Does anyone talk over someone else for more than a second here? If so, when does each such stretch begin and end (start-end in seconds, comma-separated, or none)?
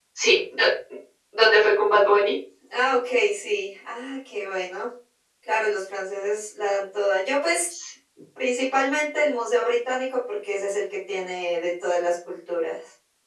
none